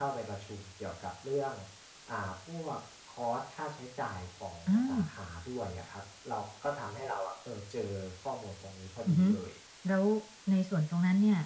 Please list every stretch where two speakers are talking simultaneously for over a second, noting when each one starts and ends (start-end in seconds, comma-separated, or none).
none